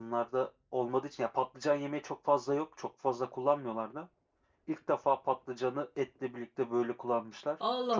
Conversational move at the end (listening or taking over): taking over